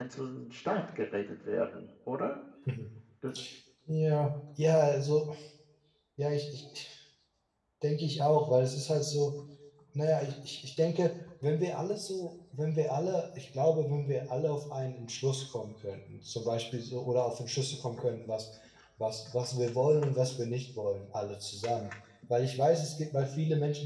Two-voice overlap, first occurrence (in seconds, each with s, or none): none